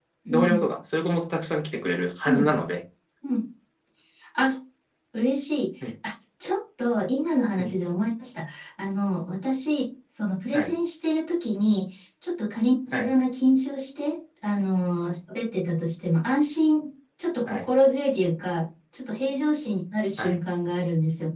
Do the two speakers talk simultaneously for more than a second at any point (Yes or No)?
No